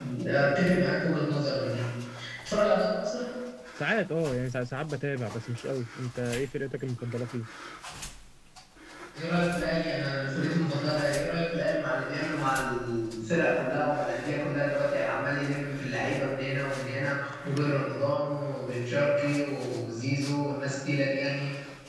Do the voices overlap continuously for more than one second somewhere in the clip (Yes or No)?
No